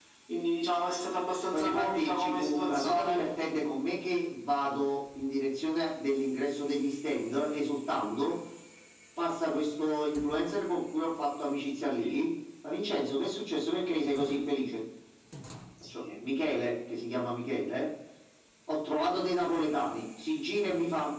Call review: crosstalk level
present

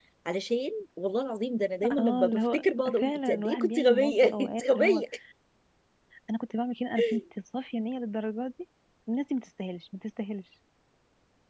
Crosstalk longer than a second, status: present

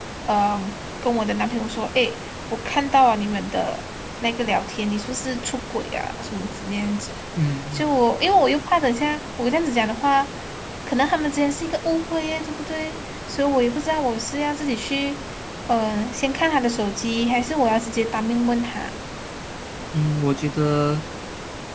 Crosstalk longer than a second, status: none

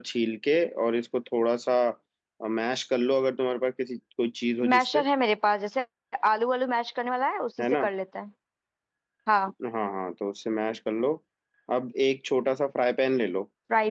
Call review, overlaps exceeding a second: none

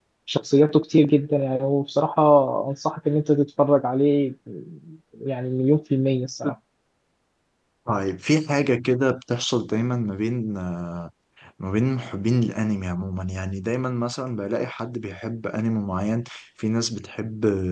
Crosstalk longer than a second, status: none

